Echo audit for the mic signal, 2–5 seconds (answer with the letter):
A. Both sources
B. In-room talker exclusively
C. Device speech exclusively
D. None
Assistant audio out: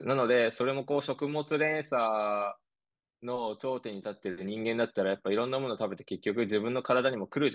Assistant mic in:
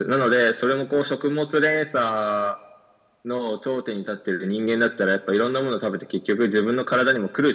C